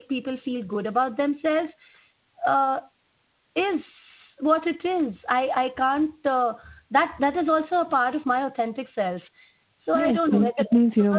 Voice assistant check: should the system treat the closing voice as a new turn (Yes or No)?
Yes